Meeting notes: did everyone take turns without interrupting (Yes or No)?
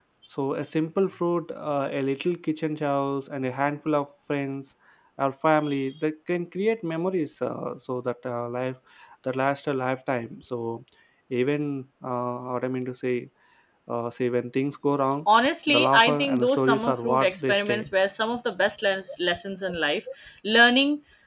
No